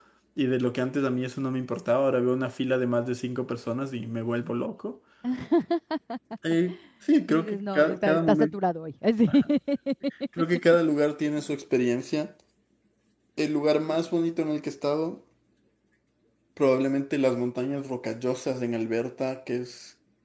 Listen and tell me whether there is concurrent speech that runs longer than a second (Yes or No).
Yes